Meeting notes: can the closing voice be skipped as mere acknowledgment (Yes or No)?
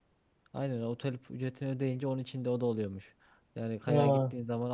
Yes